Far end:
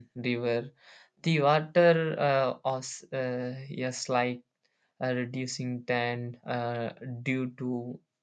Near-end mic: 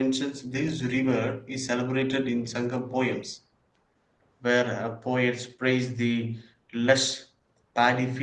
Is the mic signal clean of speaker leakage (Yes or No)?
Yes